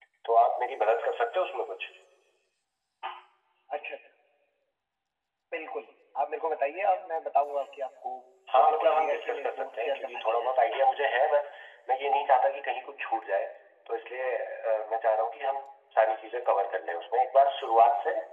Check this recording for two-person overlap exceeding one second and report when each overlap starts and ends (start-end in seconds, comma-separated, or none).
8.5-10.5